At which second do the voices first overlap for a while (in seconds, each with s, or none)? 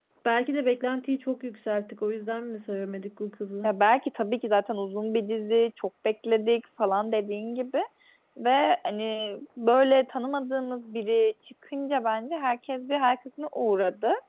none